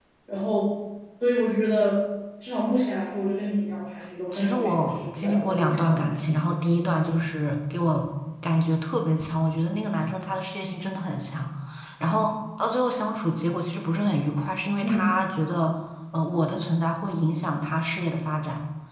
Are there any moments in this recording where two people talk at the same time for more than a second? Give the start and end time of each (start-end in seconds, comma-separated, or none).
4.3-6.3